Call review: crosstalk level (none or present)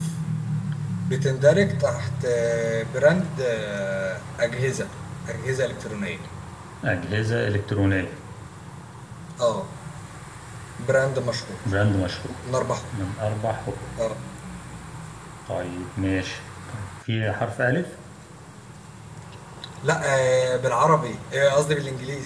none